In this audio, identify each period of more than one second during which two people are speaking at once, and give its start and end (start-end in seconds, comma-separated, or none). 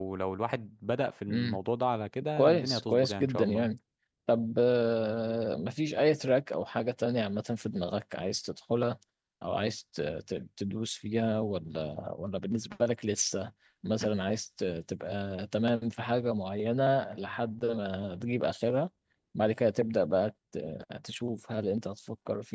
2.4-3.7